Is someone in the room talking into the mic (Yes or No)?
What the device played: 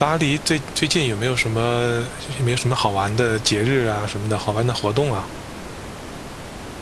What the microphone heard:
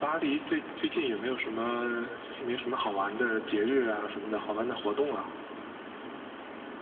No